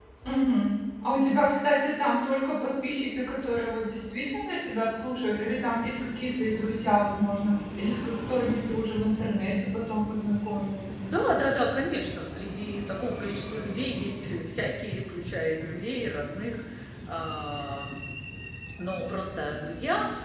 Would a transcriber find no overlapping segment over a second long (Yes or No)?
Yes